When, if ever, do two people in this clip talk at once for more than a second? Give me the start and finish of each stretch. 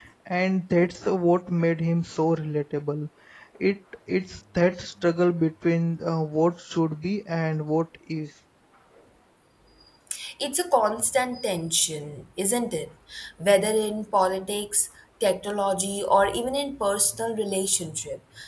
none

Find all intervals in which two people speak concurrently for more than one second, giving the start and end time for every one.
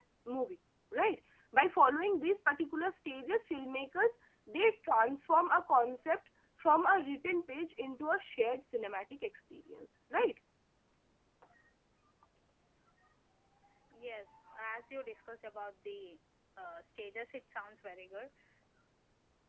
none

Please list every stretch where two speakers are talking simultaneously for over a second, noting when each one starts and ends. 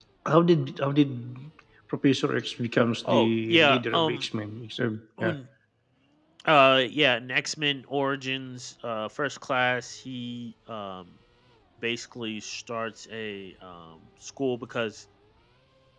3.0-4.3

